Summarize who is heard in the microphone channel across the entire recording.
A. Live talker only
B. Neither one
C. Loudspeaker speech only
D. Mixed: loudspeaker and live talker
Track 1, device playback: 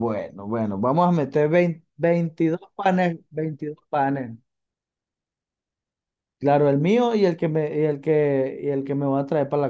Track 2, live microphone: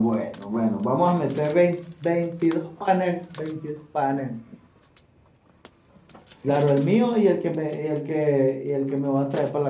C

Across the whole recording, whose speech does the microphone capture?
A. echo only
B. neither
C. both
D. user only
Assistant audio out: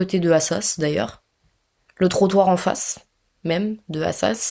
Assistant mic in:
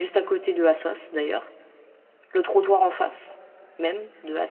A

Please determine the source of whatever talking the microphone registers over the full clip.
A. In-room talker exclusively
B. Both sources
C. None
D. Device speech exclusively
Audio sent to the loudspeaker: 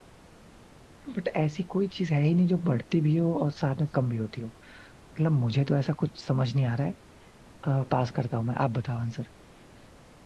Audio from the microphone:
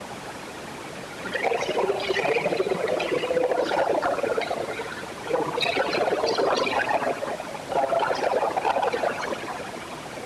D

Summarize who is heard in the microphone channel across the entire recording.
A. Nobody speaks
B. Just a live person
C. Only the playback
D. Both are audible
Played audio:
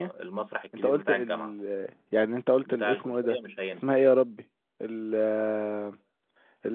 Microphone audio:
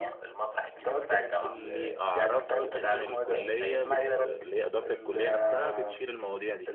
D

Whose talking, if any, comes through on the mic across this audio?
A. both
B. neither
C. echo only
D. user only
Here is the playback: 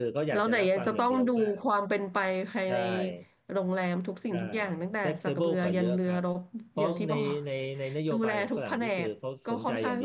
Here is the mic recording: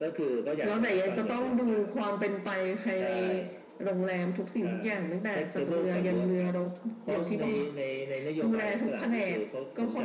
C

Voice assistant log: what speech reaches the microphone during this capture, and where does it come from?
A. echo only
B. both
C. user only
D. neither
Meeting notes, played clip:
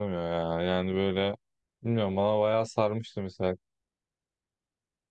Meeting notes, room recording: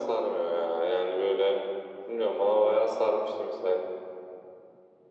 A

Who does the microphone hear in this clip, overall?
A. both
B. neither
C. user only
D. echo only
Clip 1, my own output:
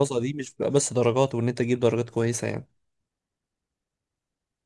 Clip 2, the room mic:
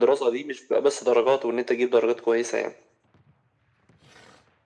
D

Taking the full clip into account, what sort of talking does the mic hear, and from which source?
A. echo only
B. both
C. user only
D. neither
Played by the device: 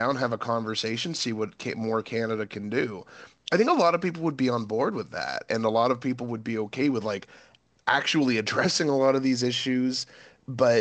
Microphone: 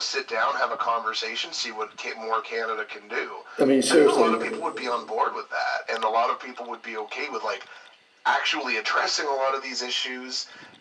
B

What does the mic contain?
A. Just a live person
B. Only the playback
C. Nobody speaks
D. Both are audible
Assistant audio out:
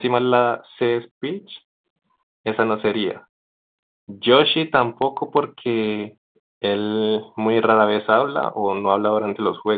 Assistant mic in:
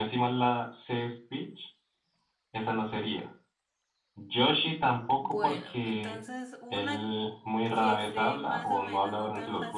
D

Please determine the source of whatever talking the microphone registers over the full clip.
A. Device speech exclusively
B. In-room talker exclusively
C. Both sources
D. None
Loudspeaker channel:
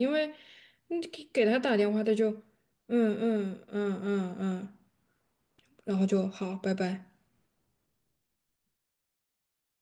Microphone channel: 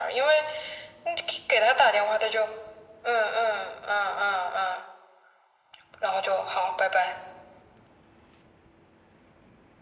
A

